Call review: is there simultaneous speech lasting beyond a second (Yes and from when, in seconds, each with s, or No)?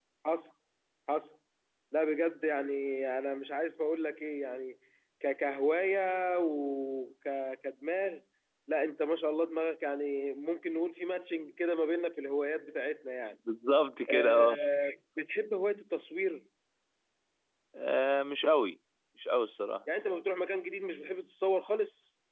No